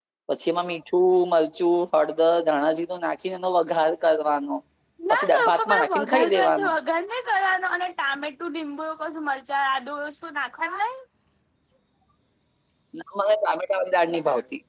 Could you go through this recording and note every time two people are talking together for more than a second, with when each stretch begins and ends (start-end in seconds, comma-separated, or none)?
5.2-6.7